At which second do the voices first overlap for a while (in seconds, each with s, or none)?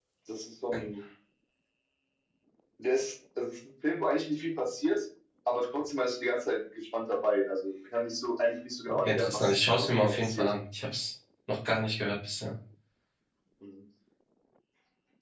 9.0 s